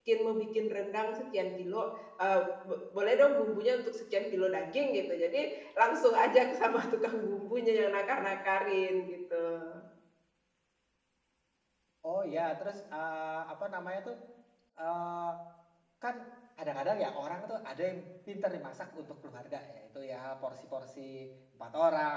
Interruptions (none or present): none